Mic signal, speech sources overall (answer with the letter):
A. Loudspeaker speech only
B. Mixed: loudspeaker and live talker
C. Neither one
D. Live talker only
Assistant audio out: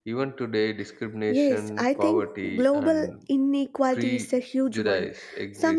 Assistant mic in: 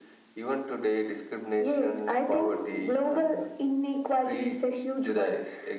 A